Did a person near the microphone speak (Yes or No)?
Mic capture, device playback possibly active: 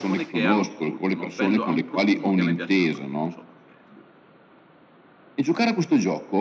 Yes